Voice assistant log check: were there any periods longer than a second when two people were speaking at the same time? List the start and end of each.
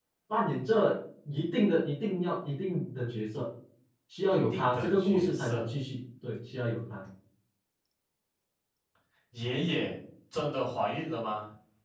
4.5-5.7

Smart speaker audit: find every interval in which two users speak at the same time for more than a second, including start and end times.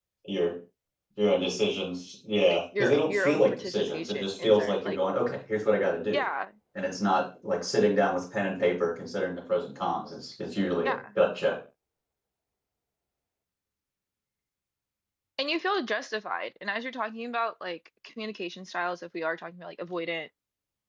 2.5-5.0

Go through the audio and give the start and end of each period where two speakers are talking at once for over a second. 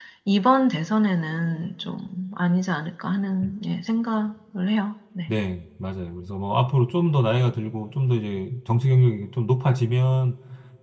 none

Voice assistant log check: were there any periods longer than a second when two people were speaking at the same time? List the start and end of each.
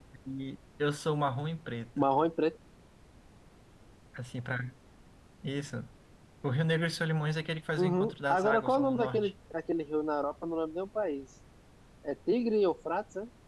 7.8-9.3

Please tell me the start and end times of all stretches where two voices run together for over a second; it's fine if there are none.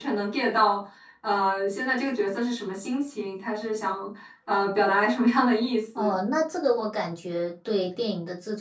none

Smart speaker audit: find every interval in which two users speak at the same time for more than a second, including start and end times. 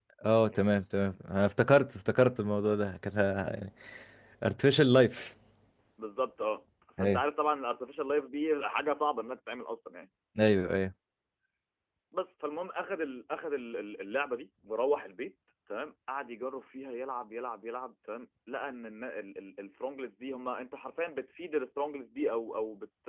none

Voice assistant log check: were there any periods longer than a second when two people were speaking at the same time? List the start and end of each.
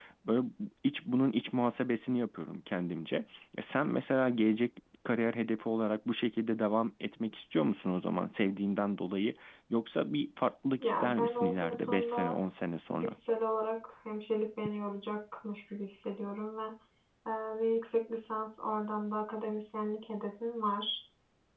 10.8-12.4

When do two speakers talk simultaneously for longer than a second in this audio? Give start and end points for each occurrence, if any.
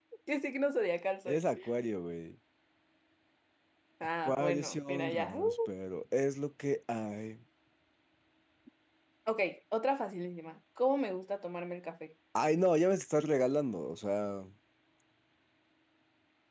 4.2-5.4

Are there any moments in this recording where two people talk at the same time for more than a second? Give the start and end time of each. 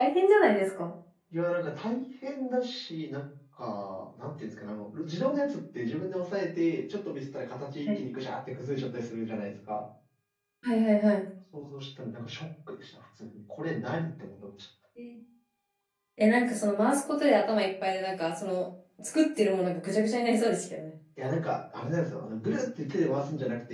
none

